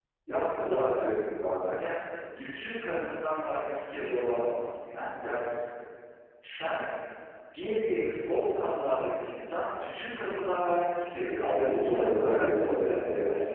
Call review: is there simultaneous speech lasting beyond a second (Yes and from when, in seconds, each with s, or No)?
Yes, from 11.4 s